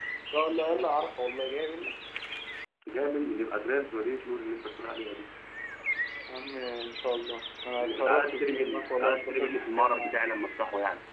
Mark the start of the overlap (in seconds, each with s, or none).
7.8 s